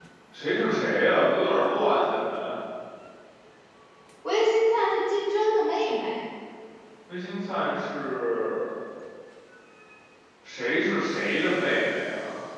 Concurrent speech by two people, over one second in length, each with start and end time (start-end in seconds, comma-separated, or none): none